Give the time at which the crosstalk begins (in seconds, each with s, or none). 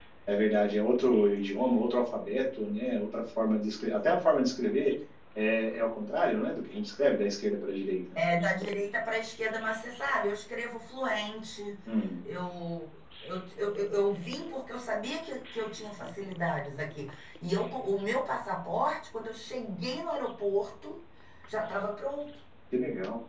none